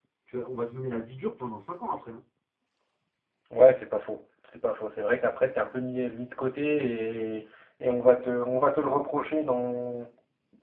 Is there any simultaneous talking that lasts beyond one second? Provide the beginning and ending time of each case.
none

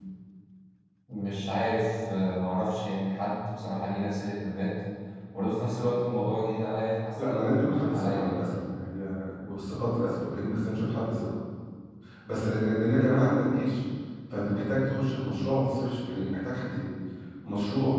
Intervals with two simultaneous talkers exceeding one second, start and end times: 7.2-8.5

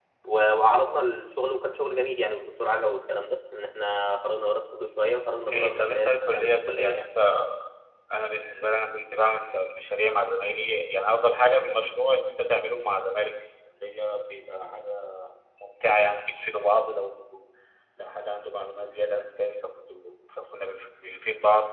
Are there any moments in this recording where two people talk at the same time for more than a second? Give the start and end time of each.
5.5-7.1

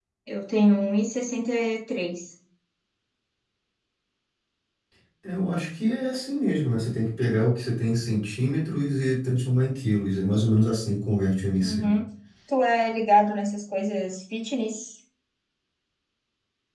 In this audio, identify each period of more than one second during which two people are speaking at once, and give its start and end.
none

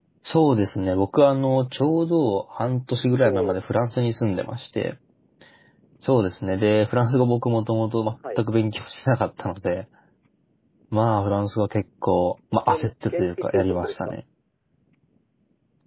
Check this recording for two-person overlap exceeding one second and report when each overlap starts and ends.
12.5-14.1

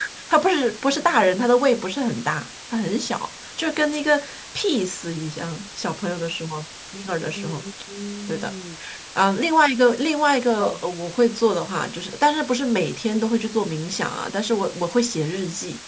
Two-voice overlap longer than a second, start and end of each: none

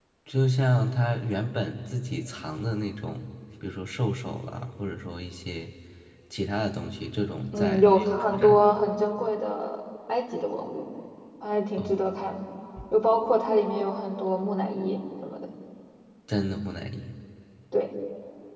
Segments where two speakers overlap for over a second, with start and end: 7.5-8.7

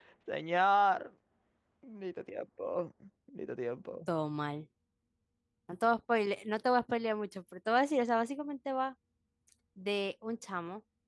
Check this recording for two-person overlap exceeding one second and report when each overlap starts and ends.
none

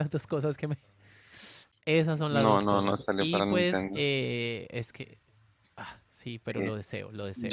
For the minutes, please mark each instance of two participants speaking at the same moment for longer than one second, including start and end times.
2.3-4.0

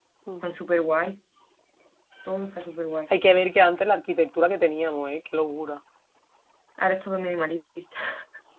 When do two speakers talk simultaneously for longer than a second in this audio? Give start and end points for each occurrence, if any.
none

